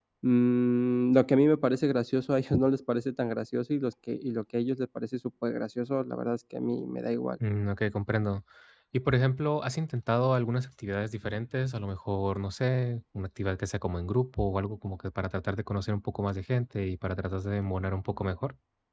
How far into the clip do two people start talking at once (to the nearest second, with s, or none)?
none